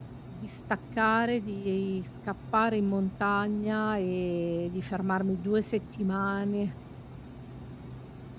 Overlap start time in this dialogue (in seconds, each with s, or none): none